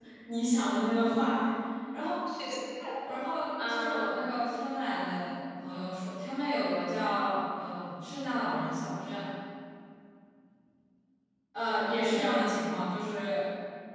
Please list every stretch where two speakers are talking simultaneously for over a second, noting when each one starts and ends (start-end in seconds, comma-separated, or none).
none